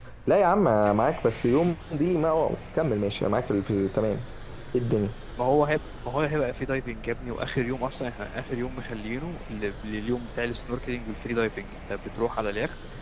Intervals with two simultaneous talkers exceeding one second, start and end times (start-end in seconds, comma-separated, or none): none